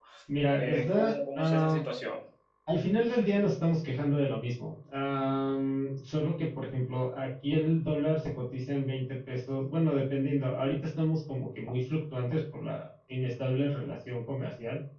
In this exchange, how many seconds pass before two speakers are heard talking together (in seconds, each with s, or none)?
0.6 s